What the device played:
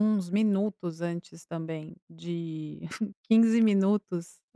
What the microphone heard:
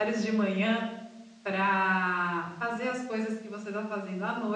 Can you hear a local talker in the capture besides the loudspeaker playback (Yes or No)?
Yes